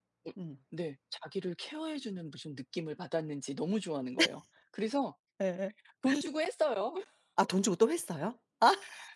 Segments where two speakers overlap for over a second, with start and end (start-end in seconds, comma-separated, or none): none